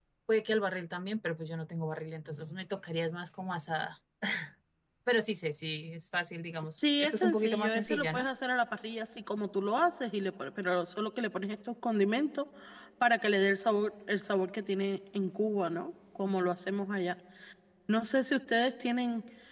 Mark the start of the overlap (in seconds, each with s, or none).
6.8 s